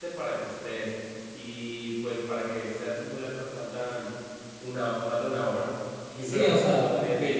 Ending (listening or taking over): taking over